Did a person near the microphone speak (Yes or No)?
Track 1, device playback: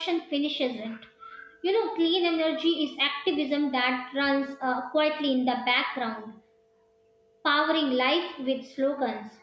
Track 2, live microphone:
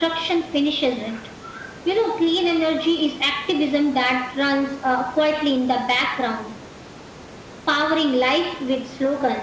No